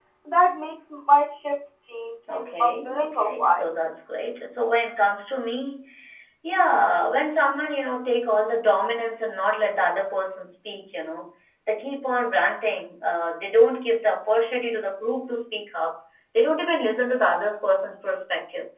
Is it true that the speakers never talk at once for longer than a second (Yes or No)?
No